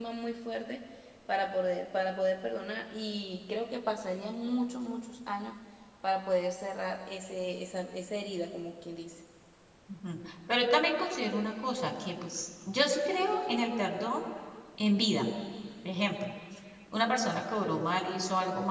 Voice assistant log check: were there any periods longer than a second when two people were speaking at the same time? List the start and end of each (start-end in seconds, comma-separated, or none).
none